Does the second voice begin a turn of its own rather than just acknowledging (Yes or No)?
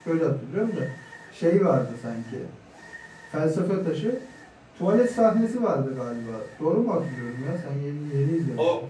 Yes